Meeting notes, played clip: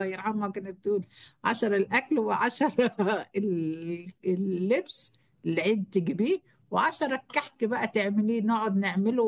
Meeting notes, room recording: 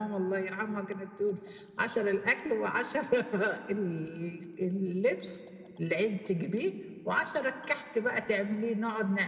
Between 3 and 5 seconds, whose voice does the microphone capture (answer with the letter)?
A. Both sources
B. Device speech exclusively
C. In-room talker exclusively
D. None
B